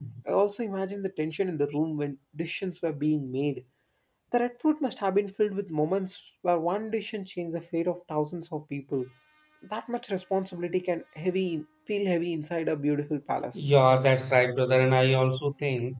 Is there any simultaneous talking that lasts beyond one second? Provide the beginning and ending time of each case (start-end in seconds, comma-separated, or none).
none